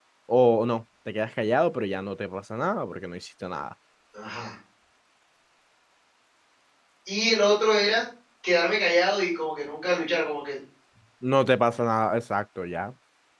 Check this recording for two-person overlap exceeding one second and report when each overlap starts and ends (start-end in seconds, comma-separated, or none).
none